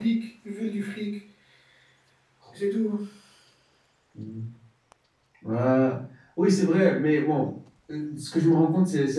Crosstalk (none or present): none